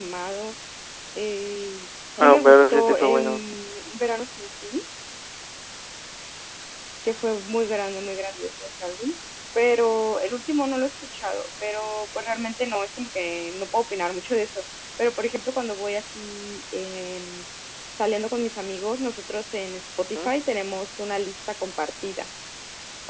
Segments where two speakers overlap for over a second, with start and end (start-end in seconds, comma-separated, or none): 2.2-3.5